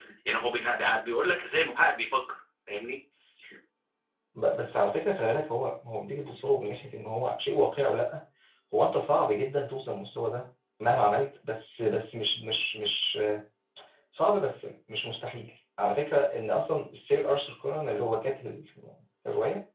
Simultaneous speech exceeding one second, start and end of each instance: none

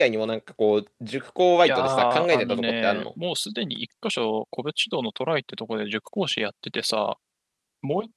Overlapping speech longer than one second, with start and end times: 1.6-3.0

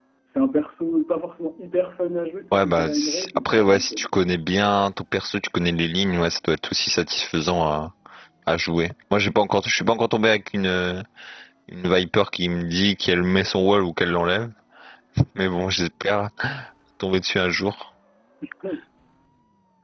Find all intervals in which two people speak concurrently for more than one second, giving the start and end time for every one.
2.5-3.9

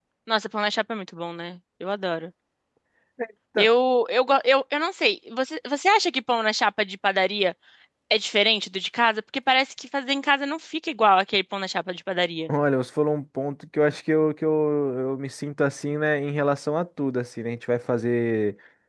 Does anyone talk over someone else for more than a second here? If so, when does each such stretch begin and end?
none

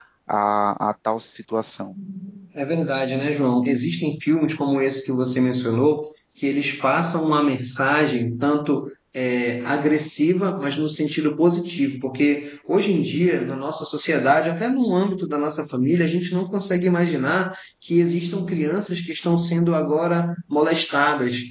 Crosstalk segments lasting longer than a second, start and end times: none

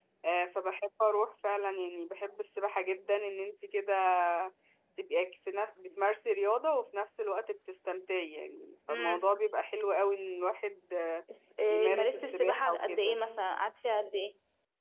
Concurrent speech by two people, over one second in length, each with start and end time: 11.7-13.2

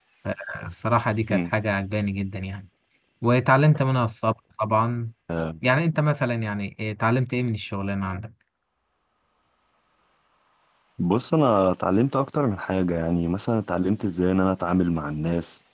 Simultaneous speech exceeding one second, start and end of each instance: none

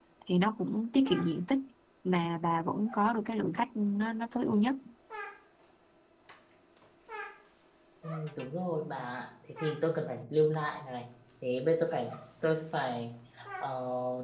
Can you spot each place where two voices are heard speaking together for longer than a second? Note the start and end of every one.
none

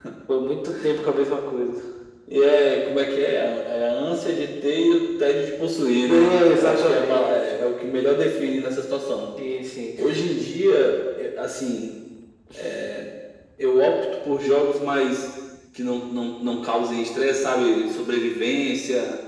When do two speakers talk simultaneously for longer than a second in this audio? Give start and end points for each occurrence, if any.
6.1-7.4

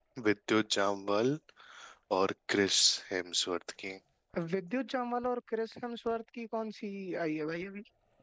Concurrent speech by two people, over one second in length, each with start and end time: none

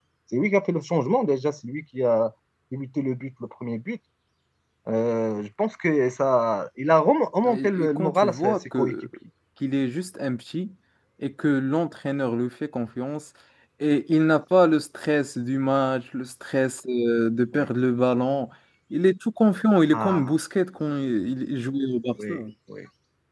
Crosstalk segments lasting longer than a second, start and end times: 7.5-8.9

